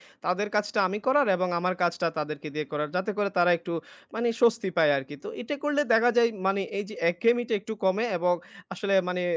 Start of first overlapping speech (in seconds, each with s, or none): none